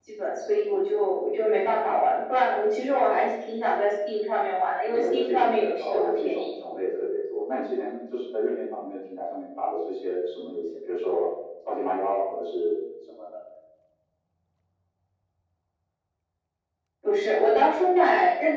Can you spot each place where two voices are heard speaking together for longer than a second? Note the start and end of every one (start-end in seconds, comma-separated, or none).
4.9-6.4